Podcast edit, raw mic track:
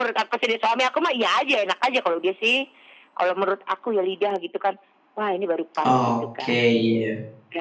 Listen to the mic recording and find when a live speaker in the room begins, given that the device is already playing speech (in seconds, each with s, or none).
5.8 s